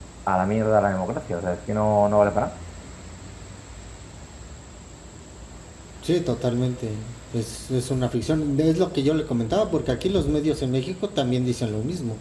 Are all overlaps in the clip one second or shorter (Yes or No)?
Yes